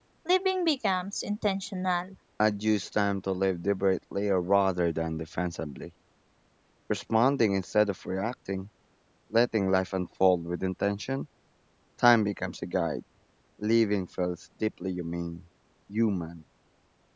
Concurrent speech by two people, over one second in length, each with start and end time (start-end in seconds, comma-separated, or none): none